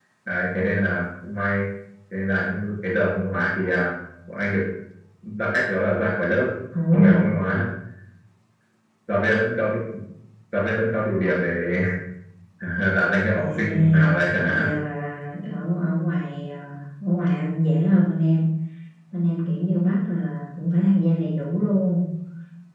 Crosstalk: present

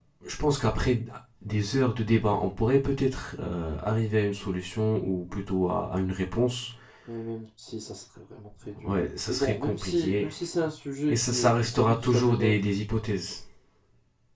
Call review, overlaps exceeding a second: present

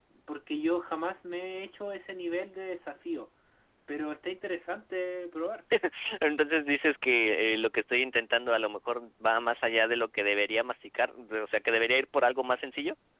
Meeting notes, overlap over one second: none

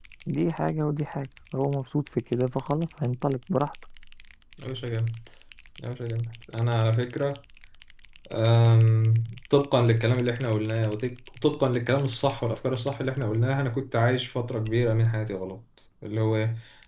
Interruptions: none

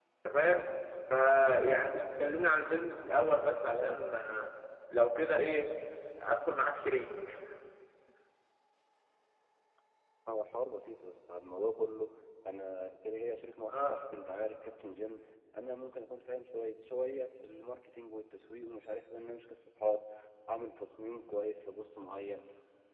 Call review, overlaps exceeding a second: none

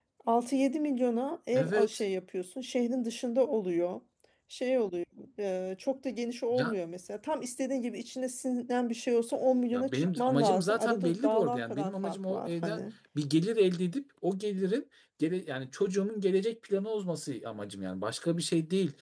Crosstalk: present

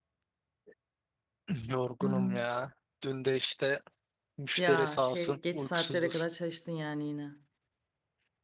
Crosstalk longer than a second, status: present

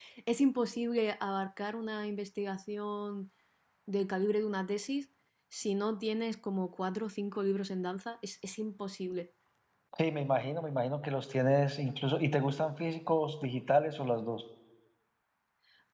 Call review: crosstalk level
none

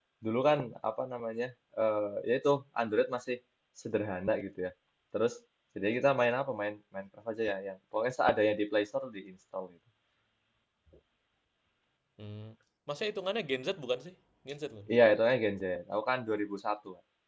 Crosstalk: none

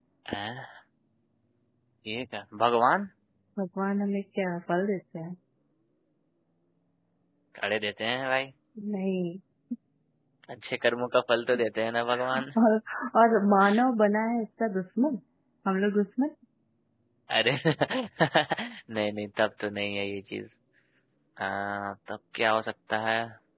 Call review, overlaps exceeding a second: none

